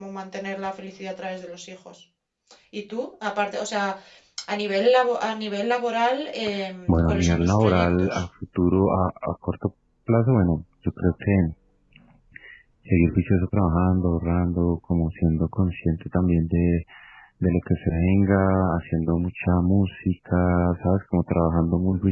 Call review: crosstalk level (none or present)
present